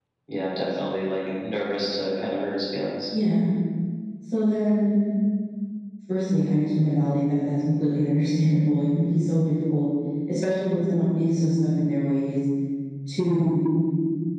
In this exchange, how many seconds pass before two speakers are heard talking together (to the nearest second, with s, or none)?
none